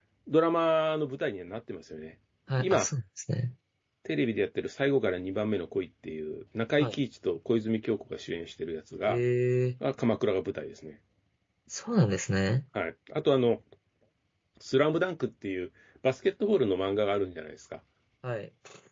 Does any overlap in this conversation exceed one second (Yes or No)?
No